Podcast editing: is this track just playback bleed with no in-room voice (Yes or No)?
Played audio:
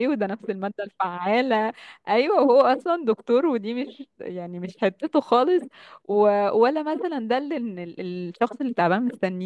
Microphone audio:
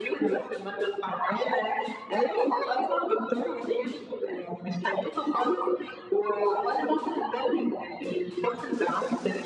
Yes